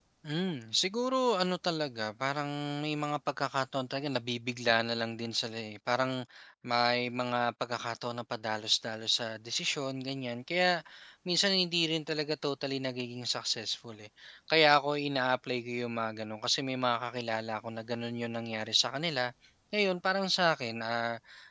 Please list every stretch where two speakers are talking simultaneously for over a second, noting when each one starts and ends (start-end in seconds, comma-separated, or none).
none